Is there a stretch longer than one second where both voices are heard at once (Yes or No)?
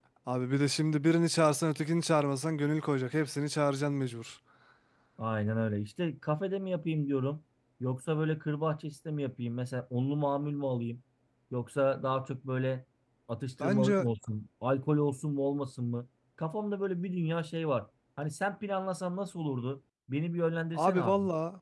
No